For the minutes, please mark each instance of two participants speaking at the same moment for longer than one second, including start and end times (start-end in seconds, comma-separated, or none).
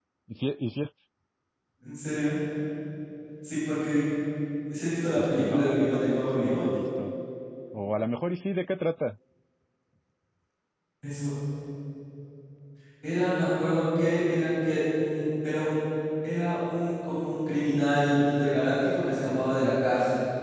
5.2-6.6